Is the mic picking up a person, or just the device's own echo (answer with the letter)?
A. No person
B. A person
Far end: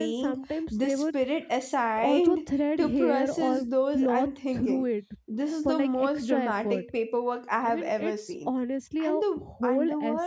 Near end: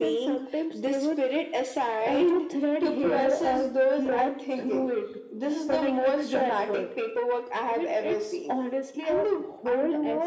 A